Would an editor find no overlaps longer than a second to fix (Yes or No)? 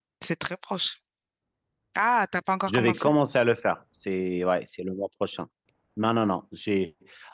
Yes